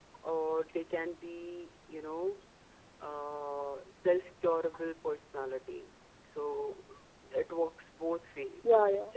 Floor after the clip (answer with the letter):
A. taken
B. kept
B